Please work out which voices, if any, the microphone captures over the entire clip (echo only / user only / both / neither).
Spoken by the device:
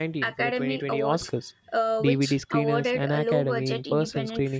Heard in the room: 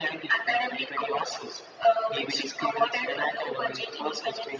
echo only